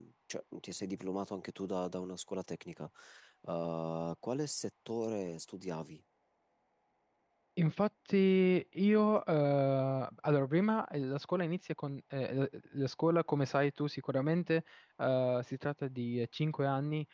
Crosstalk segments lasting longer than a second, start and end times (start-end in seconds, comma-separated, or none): none